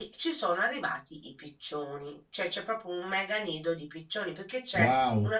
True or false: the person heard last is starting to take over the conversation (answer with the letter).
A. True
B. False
B